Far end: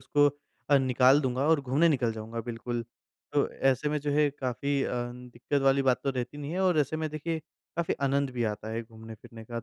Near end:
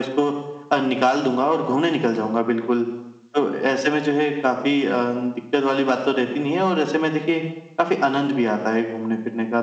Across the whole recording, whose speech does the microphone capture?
echo only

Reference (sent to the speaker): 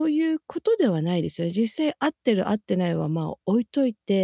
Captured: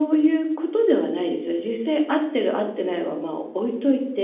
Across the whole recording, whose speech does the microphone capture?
echo only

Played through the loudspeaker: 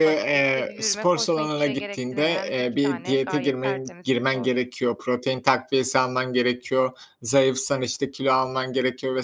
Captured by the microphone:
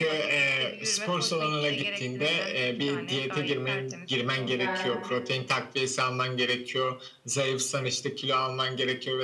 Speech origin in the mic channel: both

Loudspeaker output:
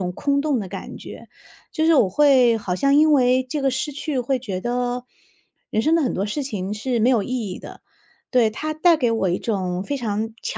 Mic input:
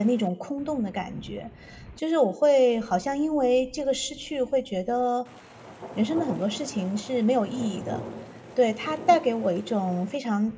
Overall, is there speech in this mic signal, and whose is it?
echo only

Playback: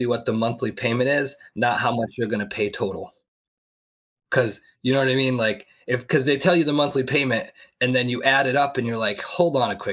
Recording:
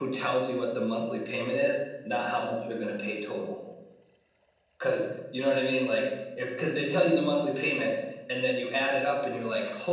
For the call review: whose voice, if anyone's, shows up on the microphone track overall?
echo only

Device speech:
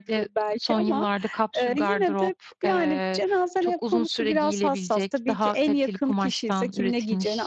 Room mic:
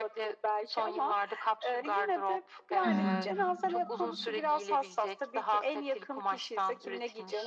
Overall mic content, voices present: both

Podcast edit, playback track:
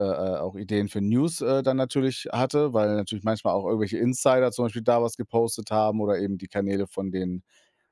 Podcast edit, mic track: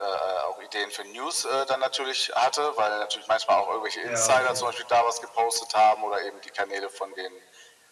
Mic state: both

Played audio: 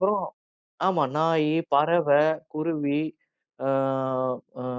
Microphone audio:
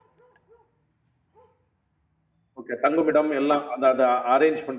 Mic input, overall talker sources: user only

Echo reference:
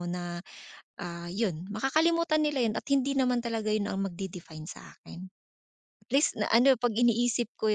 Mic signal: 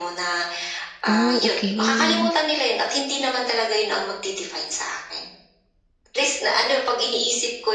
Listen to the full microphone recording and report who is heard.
both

